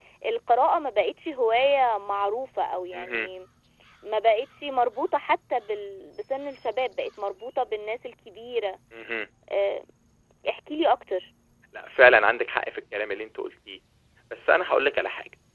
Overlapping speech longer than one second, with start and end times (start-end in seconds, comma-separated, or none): none